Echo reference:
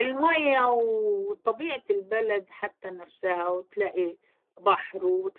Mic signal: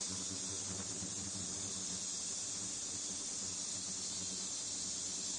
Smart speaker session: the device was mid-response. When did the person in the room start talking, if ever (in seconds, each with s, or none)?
none